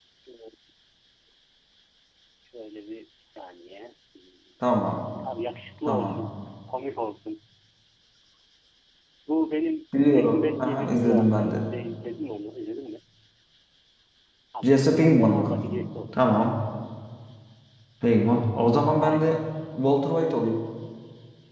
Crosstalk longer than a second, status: present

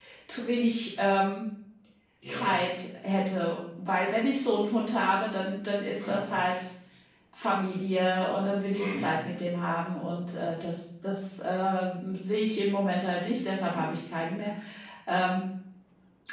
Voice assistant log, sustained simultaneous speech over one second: none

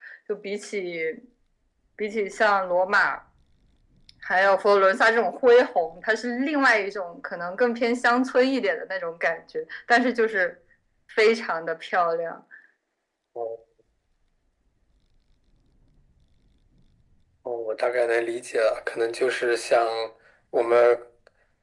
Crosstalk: none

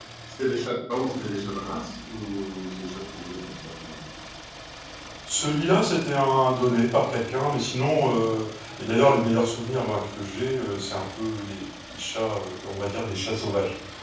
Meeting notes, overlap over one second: none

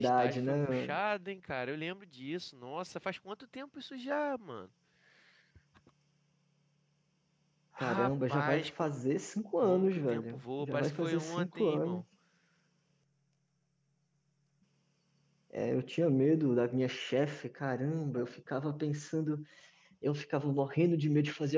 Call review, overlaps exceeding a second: present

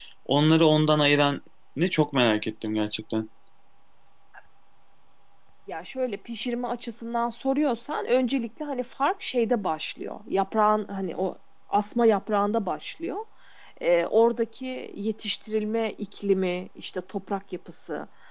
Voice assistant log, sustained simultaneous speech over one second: none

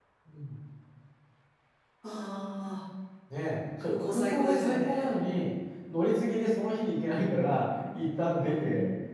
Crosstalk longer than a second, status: present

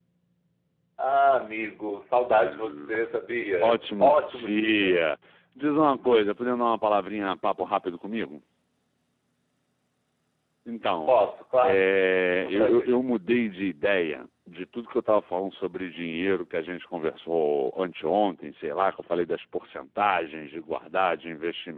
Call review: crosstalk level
present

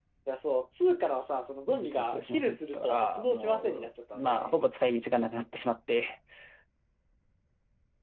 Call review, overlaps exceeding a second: present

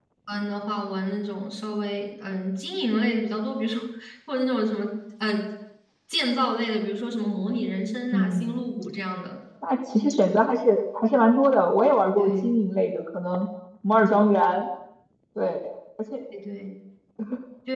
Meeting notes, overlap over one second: none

